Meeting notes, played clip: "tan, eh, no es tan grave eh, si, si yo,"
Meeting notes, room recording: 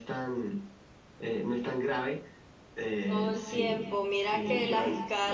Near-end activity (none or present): present